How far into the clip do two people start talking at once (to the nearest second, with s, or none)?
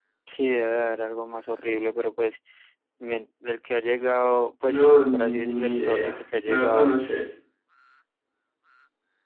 5 s